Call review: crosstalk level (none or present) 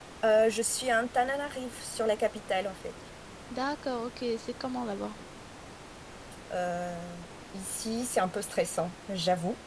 none